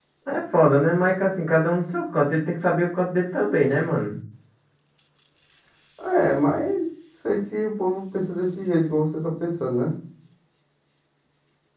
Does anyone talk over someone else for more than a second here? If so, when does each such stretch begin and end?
none

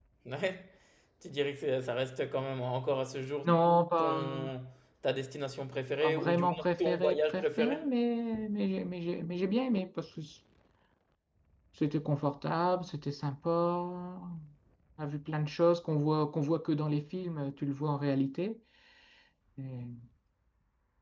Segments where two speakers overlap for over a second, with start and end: 6.0-7.8

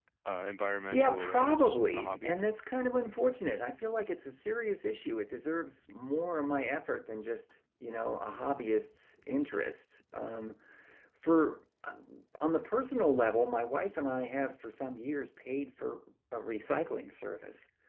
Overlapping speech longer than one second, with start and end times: 0.9-2.3

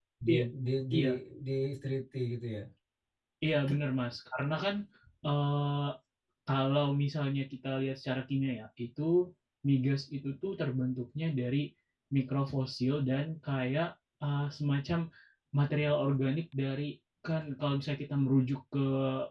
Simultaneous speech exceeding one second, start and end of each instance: none

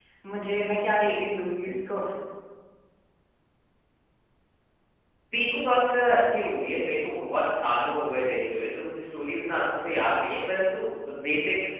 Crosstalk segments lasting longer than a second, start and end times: none

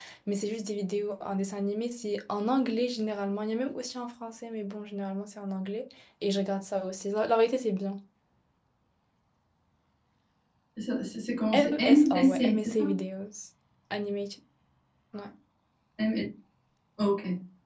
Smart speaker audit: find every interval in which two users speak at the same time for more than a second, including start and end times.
11.5-12.8

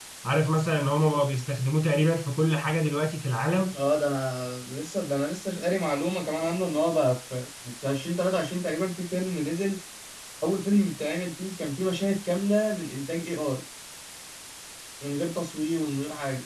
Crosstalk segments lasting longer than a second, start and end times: none

